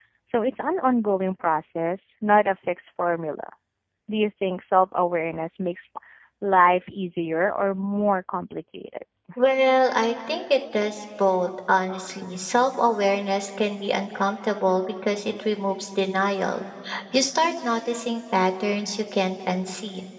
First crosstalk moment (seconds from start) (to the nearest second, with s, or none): none